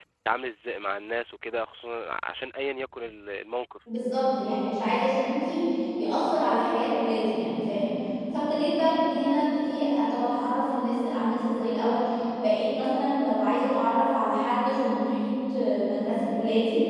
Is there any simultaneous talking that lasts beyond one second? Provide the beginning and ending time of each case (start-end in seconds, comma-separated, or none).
none